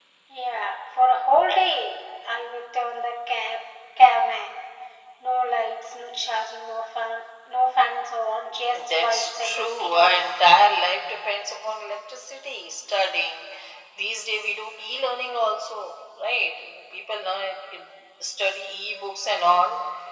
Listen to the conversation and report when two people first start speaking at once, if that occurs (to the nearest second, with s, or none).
9 s